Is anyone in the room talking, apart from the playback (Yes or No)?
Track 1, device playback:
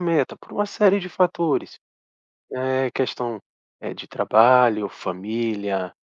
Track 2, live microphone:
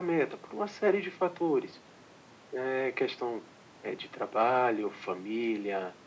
No